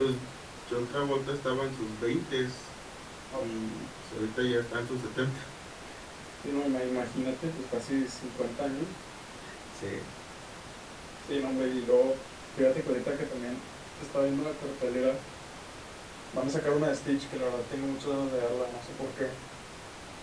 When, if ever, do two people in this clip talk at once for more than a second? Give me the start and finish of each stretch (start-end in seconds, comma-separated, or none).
none